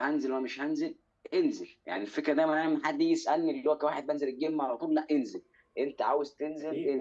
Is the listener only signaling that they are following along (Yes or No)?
Yes